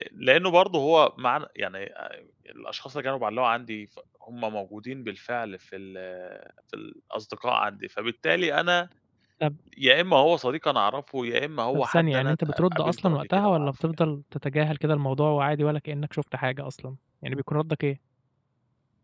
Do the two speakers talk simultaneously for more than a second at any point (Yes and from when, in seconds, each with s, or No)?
Yes, from 11.7 s